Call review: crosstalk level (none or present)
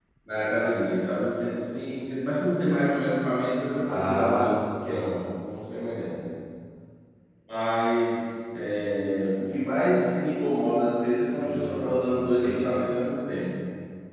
present